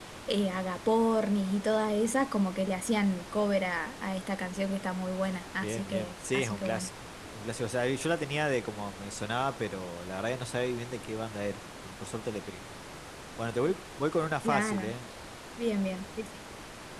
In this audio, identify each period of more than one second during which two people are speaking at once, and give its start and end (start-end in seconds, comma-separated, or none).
5.6-6.9